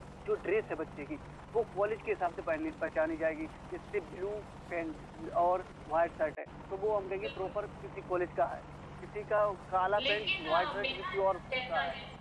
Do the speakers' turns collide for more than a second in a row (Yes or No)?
Yes